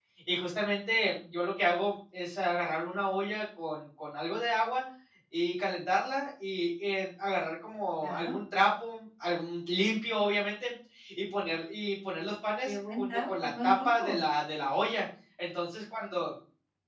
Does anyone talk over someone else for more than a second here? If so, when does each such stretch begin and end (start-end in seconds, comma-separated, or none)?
12.6-14.2